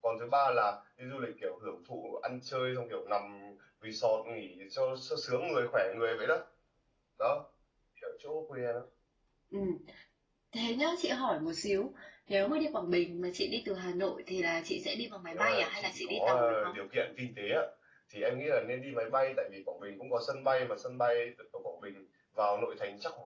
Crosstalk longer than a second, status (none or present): present